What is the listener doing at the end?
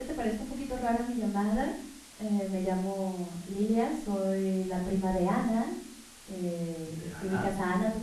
listening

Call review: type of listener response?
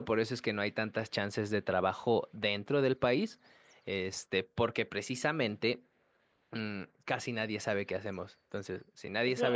taking over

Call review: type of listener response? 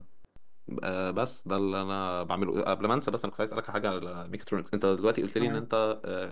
listening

